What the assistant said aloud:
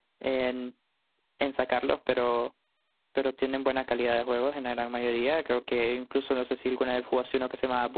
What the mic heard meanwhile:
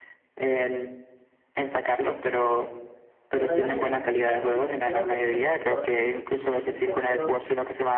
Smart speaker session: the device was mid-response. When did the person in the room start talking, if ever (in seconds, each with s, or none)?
3.3 s